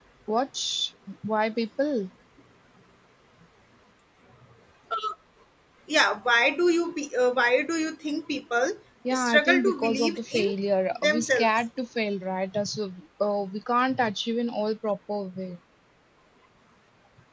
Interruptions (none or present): present